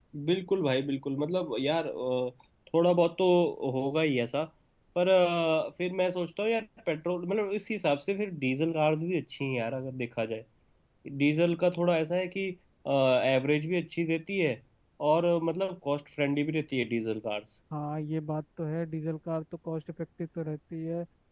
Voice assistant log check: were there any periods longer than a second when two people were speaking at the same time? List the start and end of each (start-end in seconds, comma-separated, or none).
none